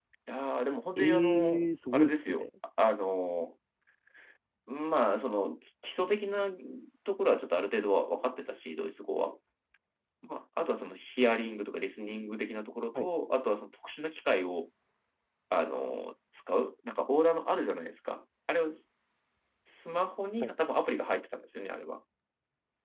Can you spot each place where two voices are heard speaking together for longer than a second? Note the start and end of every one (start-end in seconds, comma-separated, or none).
1.0-2.4